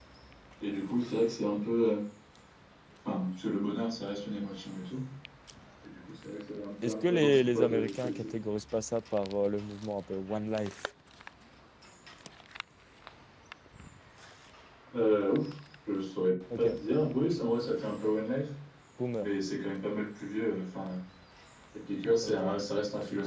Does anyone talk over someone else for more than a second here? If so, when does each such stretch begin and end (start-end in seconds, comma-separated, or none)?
6.8-8.4